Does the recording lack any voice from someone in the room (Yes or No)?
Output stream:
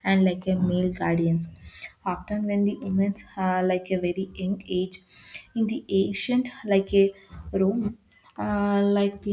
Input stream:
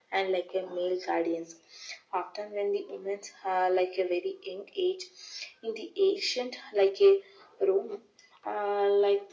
Yes